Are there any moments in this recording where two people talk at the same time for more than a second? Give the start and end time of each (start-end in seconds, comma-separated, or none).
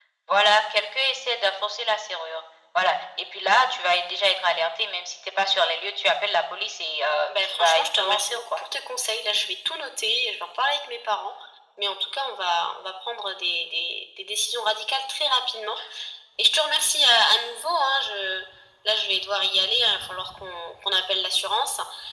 7.3-8.6